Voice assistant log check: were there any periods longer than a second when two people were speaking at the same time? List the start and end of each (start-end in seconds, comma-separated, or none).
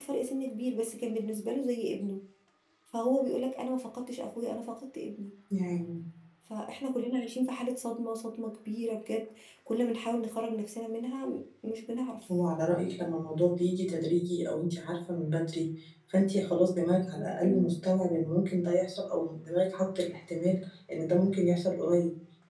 none